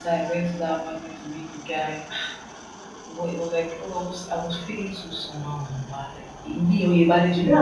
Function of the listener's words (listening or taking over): taking over